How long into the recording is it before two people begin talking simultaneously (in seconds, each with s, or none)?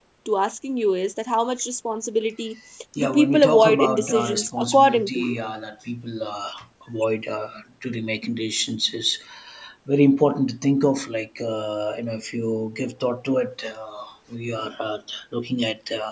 3.0 s